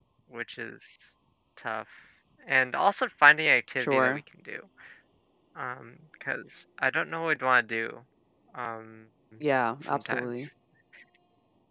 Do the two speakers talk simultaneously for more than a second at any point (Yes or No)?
No